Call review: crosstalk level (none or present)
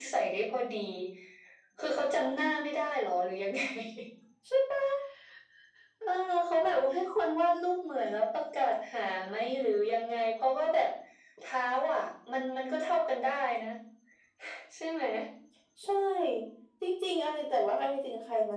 none